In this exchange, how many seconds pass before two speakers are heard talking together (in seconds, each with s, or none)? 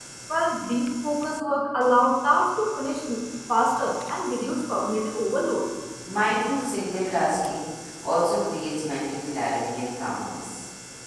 none